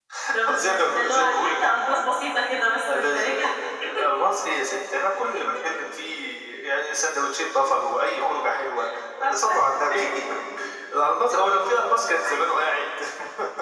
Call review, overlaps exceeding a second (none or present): present